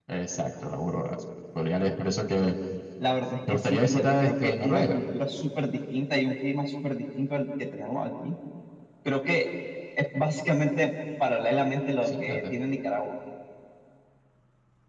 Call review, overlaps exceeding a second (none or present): present